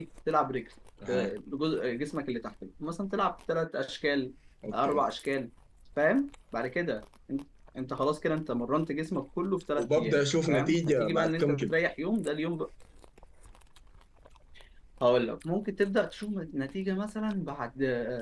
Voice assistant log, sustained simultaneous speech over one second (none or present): present